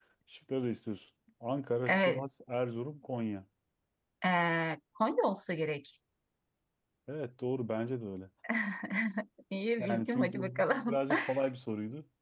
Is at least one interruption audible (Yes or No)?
Yes